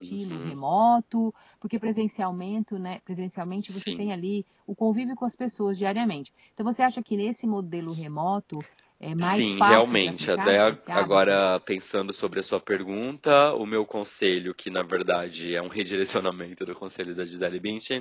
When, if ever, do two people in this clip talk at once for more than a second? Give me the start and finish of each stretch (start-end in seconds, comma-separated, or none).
9.2-11.4